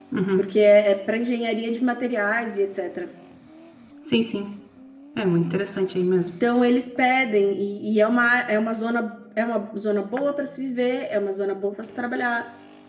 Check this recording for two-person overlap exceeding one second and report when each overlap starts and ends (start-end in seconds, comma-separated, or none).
none